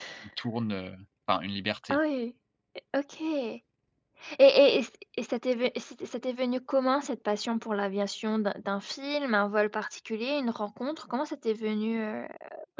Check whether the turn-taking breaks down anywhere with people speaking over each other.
No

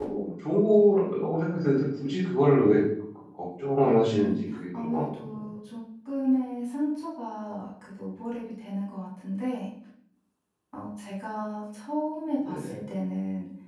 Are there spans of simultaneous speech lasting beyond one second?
Yes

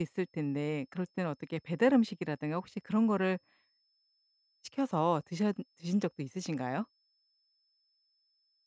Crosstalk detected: No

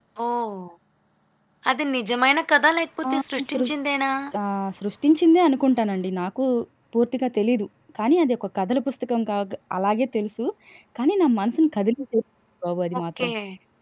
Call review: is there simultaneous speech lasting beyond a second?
No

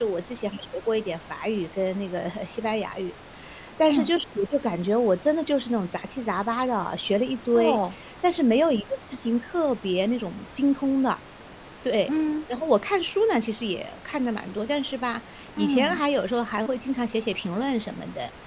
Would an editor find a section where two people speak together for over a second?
No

